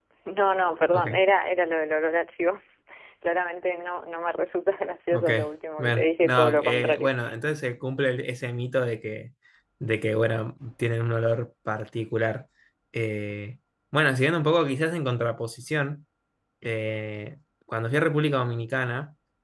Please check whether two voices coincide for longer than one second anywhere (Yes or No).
Yes